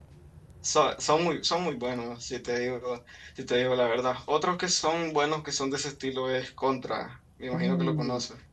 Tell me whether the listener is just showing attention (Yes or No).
No